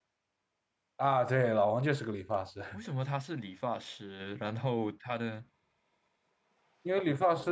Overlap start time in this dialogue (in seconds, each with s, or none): none